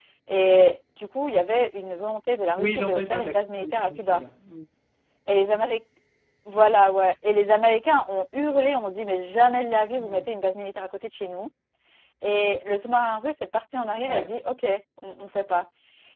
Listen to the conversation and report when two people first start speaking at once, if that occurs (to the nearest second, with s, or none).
3 s